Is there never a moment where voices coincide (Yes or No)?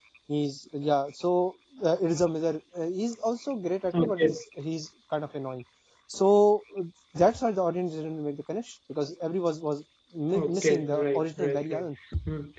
No